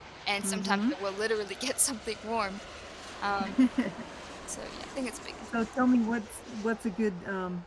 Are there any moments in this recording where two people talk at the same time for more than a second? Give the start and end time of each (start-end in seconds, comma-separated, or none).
none